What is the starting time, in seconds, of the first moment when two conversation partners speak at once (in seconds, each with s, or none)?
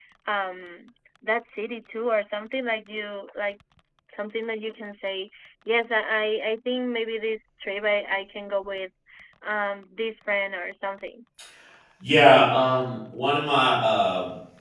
none